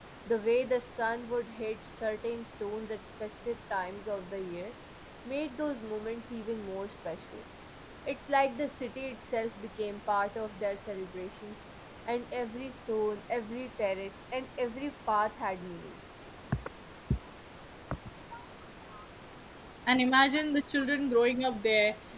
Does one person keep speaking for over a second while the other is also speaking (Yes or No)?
No